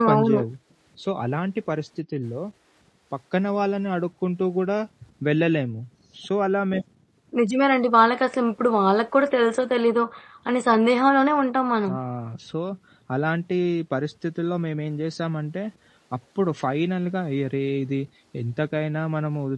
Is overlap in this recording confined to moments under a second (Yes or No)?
Yes